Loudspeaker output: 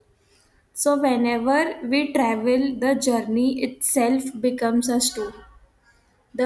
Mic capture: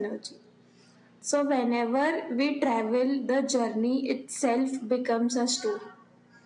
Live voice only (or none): none